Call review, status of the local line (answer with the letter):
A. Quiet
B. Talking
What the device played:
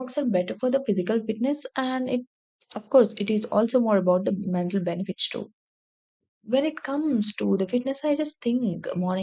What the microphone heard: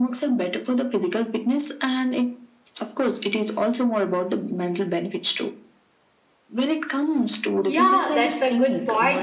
B